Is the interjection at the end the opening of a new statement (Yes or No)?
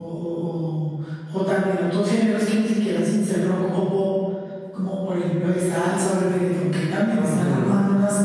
Yes